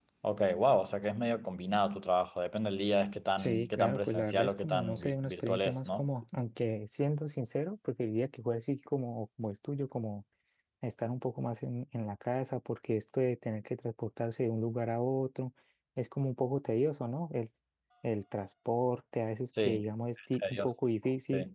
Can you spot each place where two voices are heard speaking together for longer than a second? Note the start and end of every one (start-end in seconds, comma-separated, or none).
3.4-6.1